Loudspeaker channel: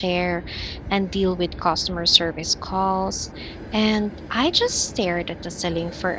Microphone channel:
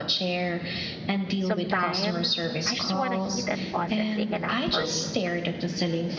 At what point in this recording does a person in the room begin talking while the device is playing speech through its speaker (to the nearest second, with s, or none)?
1 s